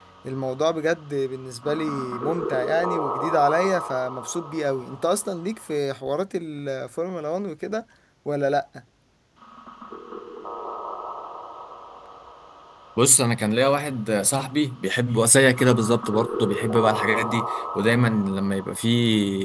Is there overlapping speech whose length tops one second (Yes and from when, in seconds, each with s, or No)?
No